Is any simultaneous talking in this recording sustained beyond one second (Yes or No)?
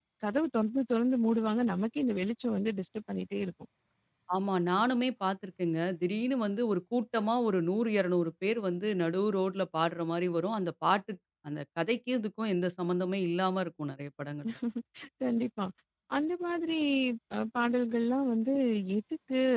No